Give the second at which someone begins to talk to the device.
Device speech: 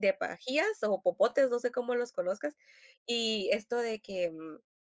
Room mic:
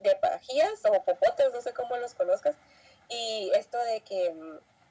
none

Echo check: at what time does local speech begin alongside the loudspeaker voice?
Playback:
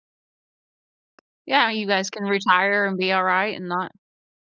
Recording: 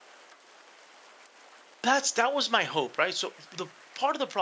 1.8 s

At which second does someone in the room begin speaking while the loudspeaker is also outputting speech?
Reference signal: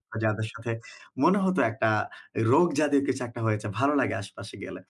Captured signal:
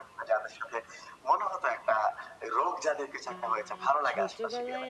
3.3 s

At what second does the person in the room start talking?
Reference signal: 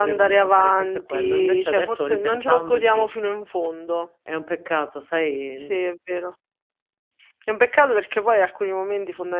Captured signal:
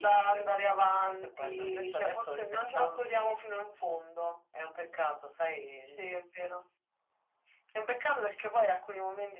none

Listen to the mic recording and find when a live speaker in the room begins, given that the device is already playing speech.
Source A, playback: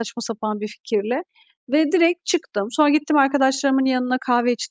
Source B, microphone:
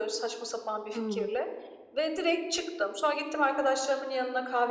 0.9 s

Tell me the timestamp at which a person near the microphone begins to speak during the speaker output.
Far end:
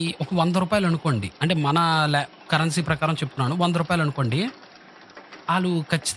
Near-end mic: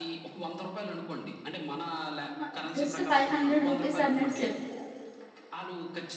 2.2 s

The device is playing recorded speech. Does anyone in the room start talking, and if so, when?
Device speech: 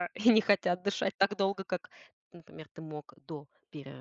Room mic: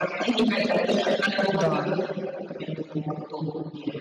1.5 s

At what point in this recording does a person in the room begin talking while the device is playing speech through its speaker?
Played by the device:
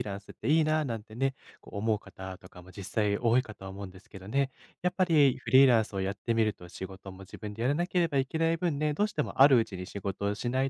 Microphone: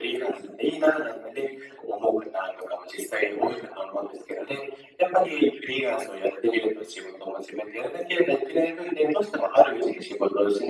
none

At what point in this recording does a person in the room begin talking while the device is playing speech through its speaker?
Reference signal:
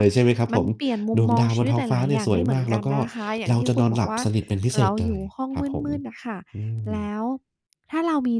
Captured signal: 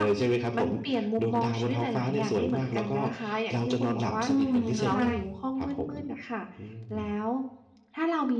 4.3 s

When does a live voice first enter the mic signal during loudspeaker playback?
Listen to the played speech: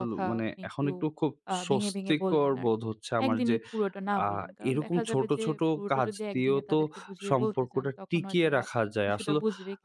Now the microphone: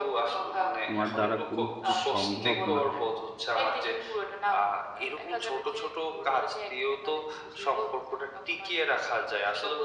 0.8 s

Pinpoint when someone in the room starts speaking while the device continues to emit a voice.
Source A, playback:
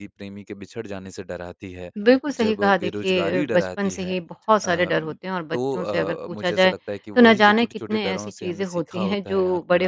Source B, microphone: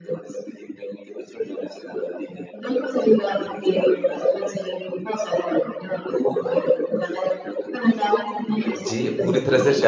8.9 s

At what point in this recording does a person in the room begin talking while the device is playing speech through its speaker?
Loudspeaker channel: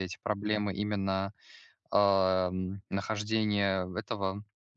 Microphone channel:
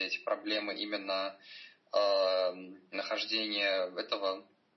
none

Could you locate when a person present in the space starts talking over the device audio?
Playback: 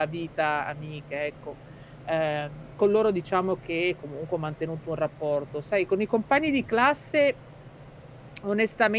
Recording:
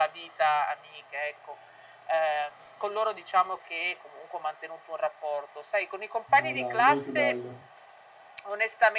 6.4 s

